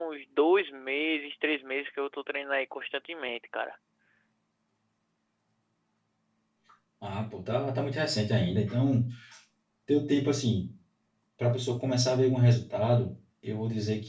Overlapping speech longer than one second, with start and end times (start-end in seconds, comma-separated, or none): none